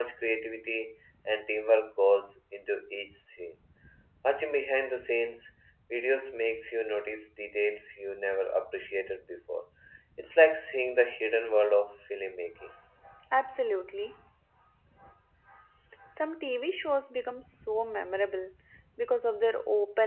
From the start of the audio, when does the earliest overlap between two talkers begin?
none

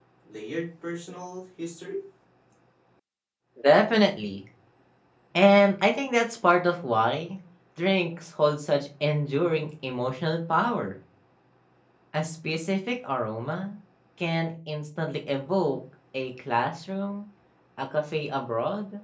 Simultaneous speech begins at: none

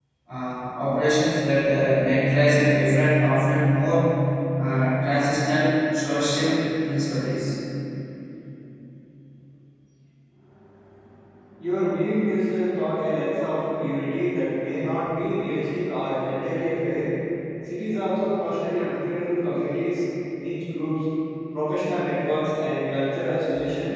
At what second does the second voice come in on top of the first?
none

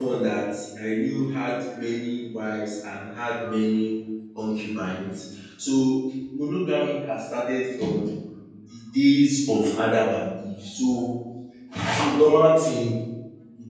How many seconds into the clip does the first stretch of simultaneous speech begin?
none

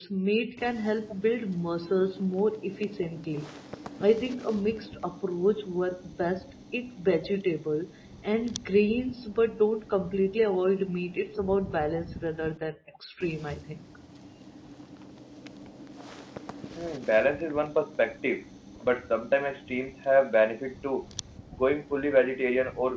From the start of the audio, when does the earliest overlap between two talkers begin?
none

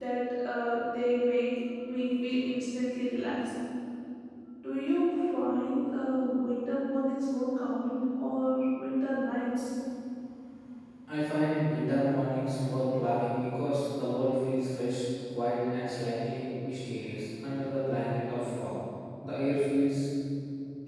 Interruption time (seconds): none

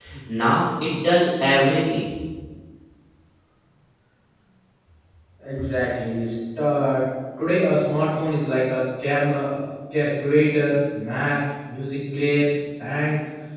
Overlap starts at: none

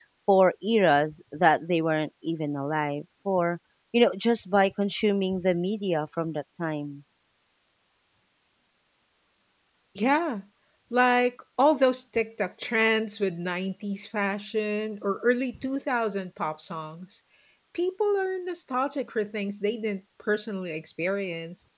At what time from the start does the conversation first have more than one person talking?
none

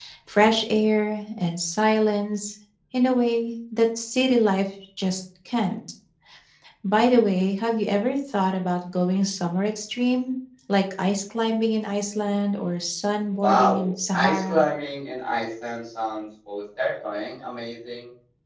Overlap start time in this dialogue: 13.4 s

